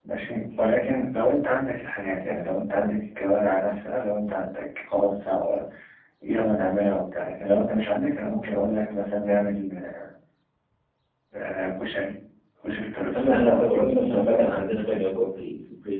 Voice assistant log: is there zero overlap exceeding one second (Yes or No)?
No